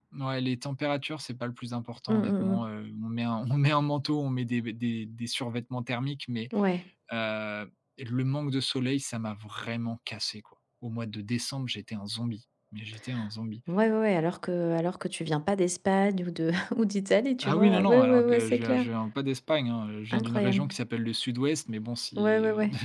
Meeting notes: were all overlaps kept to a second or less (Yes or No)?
No